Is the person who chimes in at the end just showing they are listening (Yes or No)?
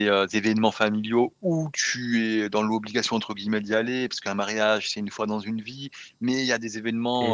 Yes